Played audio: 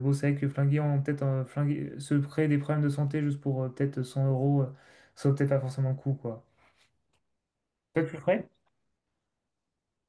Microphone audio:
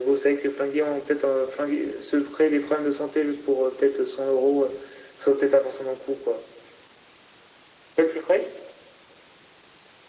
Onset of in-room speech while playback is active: none

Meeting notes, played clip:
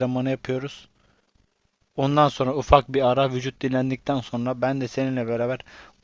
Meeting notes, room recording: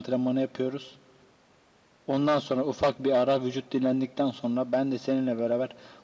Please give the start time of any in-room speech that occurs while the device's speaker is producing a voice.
none

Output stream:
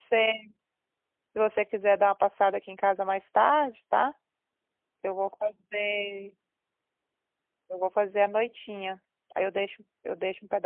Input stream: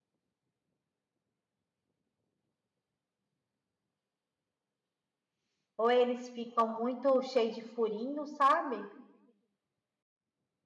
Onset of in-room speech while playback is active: 5.8 s

